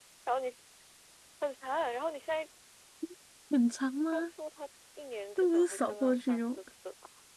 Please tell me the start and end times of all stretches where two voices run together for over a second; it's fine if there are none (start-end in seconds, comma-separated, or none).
5.4-6.6